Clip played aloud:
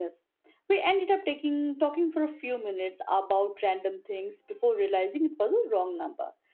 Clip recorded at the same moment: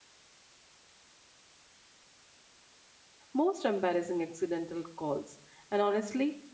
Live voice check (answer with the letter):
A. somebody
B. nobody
A